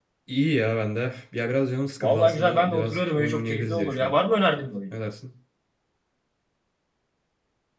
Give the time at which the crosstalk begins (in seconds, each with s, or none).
2.0 s